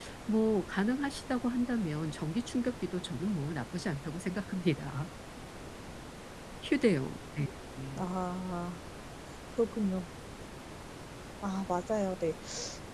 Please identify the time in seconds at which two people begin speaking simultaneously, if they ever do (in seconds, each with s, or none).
none